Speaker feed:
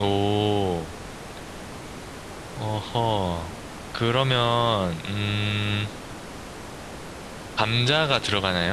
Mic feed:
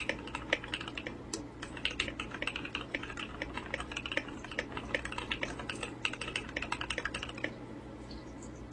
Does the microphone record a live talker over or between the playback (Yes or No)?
No